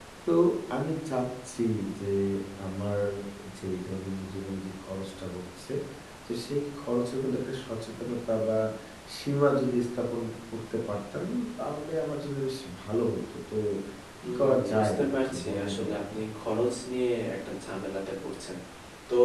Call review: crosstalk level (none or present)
present